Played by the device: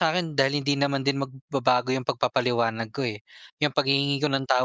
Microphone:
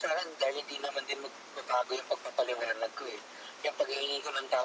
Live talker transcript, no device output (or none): none